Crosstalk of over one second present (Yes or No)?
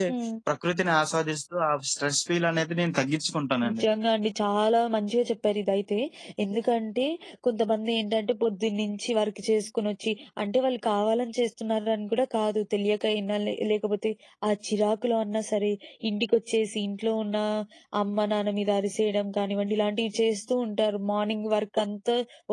No